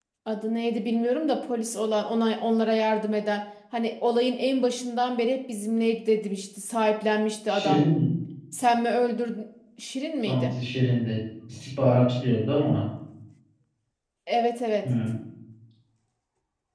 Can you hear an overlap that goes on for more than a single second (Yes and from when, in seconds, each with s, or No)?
No